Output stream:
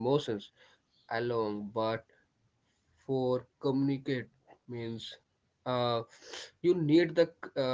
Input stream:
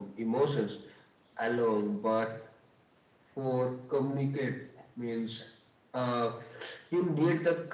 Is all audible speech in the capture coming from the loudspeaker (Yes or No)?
Yes